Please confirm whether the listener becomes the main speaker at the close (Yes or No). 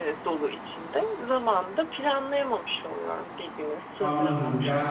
Yes